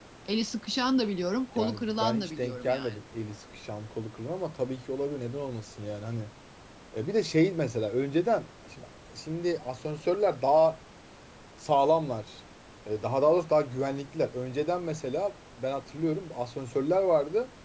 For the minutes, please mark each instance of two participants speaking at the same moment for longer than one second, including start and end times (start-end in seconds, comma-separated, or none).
1.6-2.9